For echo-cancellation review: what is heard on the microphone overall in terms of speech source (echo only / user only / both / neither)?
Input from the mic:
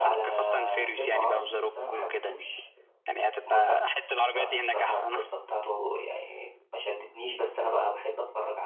both